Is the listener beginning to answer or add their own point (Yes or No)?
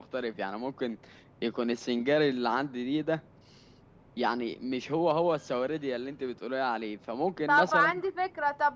Yes